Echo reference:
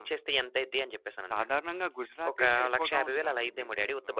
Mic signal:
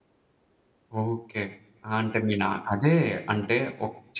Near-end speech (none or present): present